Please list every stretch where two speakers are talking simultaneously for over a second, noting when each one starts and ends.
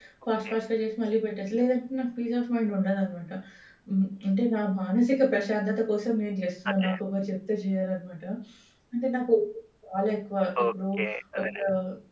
none

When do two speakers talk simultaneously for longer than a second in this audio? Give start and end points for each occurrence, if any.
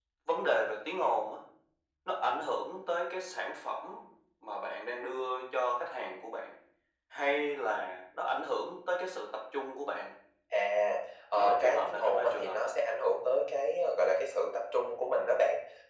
11.4-12.7

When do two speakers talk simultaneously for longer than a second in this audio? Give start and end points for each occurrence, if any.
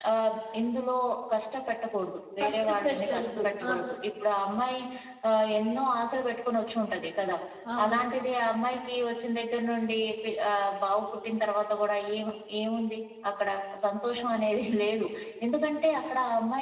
2.4-3.7

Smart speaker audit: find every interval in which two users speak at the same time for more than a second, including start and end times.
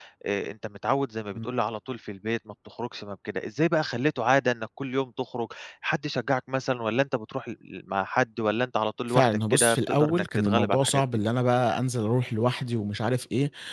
9.1-11.0

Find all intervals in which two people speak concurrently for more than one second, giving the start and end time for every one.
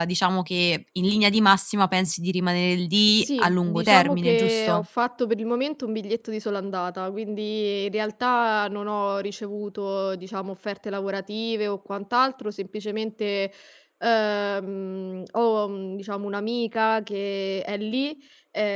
3.2-4.8

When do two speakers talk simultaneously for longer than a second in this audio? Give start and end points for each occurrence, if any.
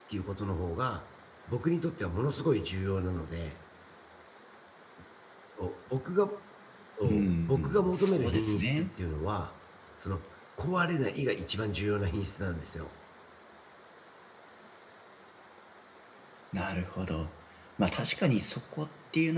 7.0-8.9

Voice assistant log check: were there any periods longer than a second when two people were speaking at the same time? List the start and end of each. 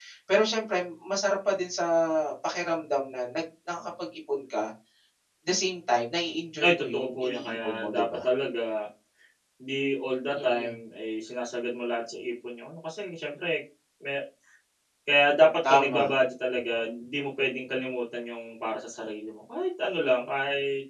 6.6-8.2

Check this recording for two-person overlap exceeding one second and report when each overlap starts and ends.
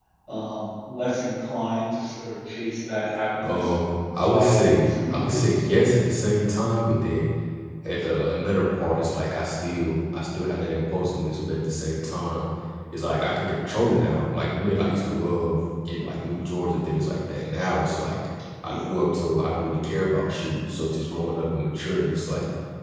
4.2-5.6

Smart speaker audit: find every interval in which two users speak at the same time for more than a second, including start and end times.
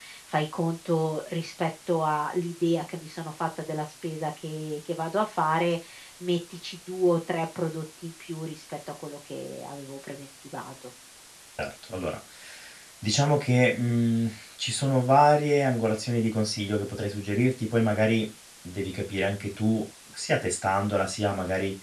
none

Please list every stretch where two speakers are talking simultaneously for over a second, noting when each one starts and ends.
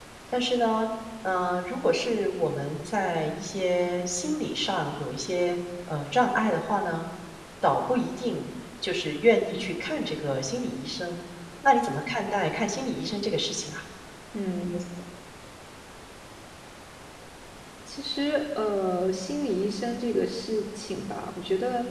none

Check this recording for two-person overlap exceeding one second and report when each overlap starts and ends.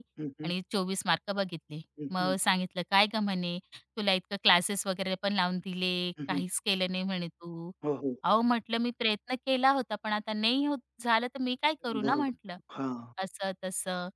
none

